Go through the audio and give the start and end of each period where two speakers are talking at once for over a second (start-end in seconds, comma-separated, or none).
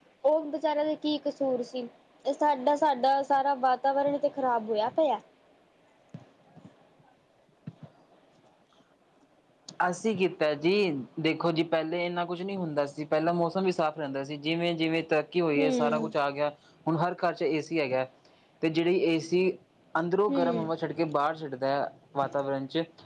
none